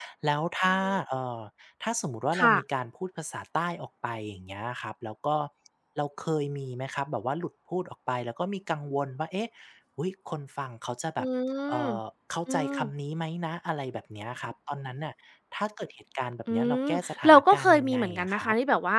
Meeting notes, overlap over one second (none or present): present